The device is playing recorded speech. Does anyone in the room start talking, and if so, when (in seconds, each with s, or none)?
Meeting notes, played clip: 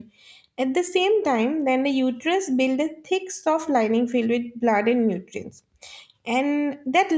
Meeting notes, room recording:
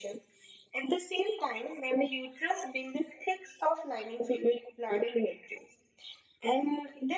none